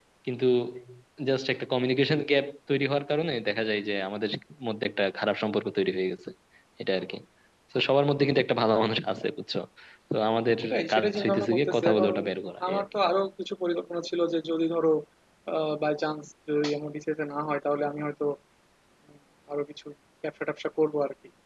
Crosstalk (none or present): present